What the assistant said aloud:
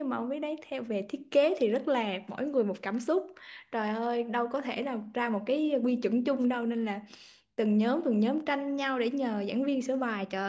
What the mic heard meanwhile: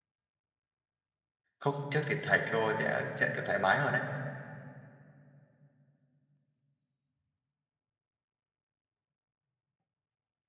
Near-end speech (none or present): present